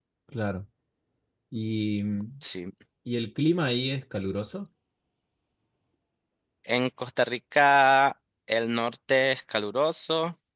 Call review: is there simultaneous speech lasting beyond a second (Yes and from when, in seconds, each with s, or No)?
No